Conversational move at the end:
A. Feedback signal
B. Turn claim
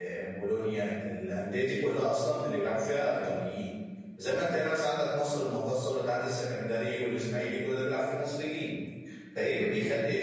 A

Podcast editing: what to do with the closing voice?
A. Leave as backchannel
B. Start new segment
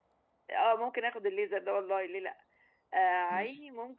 A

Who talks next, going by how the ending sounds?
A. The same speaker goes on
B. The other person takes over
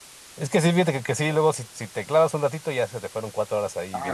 B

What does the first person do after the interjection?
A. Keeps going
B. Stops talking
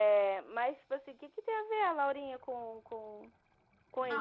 B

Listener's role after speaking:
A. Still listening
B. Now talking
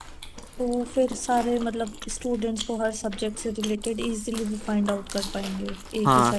B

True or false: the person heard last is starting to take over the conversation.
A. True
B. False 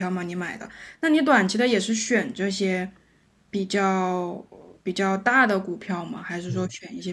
A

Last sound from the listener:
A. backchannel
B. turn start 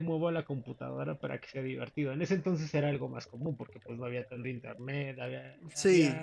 B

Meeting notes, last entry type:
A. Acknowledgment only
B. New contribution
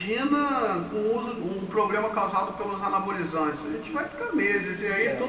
A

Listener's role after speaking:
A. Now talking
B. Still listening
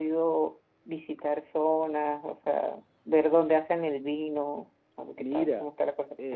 A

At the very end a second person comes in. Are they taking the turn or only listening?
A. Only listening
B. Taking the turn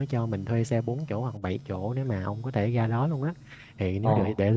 A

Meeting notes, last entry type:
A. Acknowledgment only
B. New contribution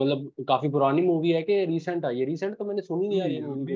B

